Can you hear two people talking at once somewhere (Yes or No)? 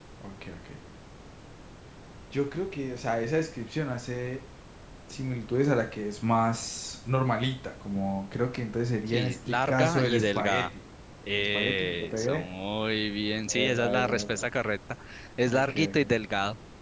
Yes